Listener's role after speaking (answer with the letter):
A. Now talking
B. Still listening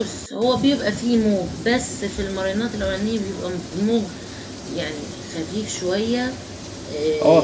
A